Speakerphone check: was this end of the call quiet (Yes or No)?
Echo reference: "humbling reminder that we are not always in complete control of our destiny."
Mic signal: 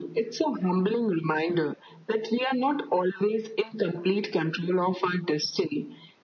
Yes